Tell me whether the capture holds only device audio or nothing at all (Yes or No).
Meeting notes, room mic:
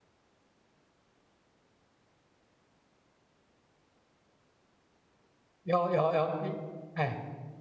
No